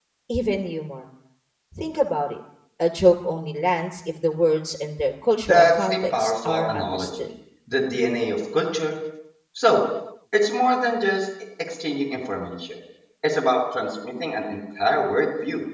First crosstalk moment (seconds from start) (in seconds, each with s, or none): 5.5 s